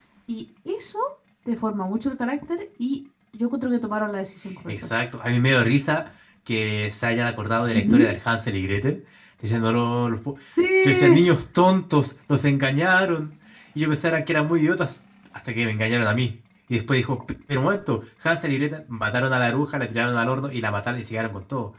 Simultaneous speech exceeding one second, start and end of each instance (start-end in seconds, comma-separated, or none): none